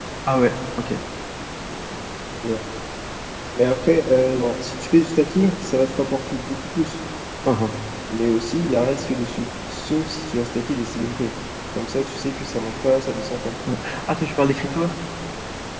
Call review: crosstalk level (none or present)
none